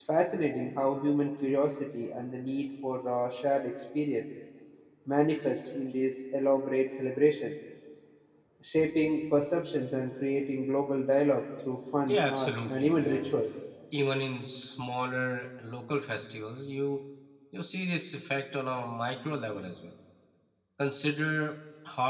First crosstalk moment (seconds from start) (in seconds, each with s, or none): 12.0 s